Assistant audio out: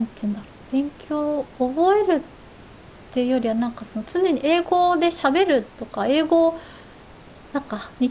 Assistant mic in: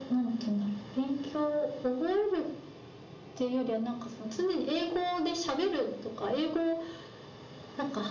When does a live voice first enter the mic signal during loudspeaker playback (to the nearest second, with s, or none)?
none